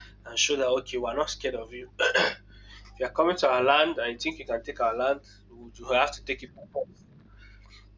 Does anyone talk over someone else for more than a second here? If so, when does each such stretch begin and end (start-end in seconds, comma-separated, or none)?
none